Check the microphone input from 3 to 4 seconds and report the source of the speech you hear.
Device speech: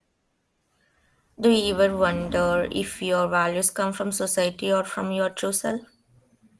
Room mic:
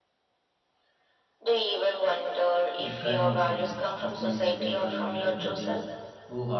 both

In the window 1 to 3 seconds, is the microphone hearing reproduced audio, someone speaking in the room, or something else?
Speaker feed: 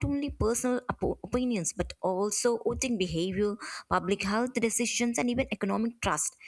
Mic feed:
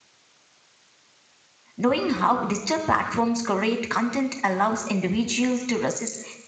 user only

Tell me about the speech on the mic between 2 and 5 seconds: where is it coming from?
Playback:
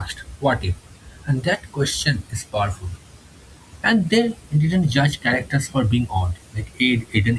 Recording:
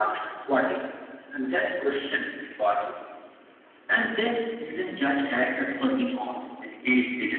echo only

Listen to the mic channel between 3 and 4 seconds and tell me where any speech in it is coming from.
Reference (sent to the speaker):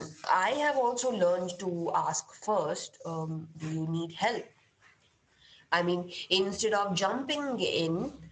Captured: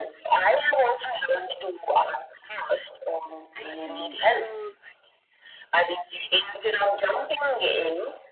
both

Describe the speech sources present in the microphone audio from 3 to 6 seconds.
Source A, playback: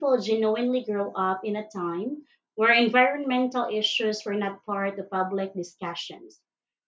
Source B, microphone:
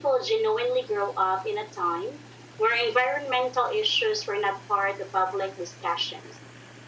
echo only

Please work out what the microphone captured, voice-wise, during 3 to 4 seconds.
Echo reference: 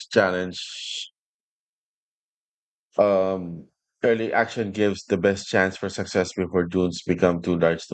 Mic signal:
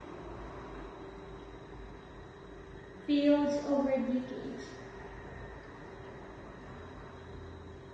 user only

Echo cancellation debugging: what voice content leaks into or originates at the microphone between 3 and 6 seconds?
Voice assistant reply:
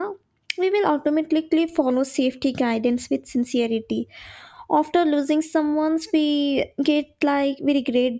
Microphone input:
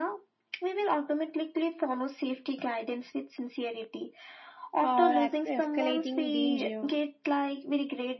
both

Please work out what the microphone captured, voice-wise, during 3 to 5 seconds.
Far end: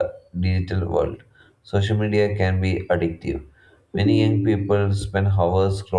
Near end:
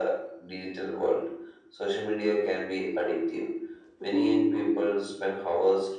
echo only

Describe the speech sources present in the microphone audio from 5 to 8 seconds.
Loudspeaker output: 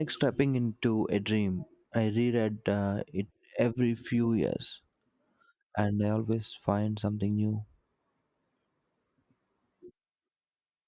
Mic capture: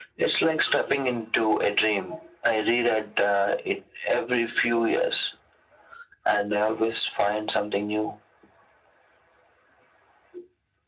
echo only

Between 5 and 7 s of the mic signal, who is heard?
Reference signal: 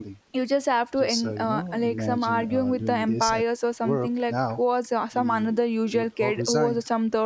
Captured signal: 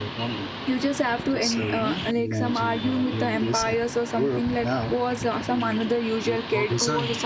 echo only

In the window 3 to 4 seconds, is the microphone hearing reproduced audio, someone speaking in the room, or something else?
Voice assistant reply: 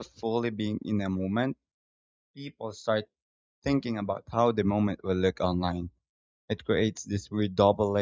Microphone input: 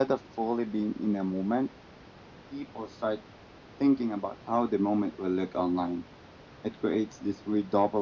echo only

